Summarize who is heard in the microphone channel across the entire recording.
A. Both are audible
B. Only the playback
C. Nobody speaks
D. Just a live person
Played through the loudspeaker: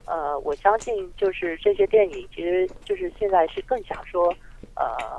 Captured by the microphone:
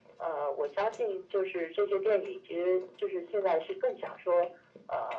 B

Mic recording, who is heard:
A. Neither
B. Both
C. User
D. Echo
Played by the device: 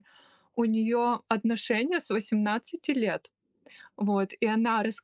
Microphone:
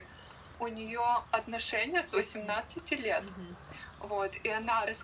B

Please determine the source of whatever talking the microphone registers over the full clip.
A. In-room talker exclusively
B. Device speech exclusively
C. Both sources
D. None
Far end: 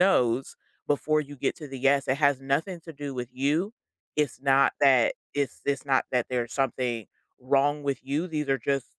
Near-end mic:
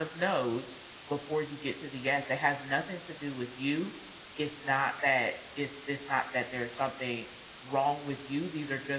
B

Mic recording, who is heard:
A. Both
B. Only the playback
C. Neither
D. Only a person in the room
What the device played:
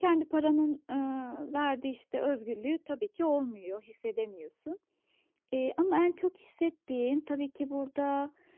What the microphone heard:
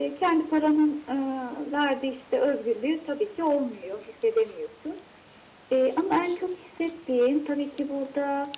B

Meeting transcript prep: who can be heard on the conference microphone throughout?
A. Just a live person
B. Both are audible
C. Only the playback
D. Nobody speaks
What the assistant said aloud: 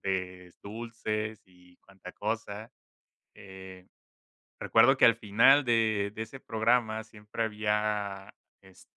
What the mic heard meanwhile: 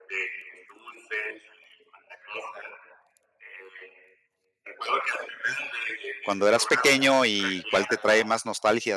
B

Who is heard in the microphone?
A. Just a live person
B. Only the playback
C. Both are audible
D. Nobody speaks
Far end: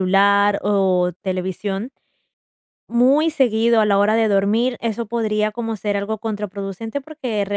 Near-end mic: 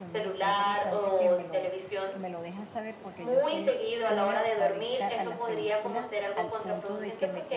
C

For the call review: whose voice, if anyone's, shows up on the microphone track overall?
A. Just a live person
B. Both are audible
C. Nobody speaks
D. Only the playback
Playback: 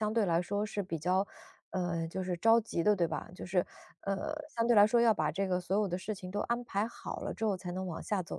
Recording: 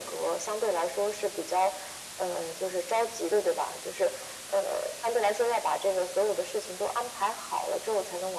D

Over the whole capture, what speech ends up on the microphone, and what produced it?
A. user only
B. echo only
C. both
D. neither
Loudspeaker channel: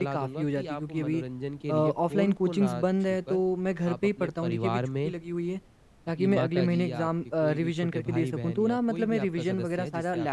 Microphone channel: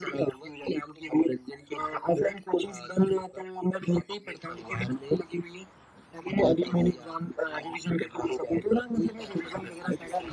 B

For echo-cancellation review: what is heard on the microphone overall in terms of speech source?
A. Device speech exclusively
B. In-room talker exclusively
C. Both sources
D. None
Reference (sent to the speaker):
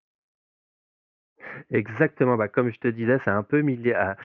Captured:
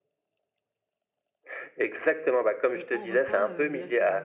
C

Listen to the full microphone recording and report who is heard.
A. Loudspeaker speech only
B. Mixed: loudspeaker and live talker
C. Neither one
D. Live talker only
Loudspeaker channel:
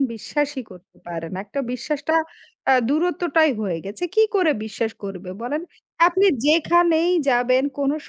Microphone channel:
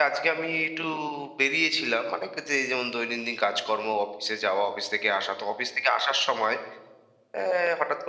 D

